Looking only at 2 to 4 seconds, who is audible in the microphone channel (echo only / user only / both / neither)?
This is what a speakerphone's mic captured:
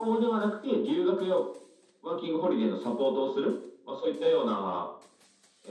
echo only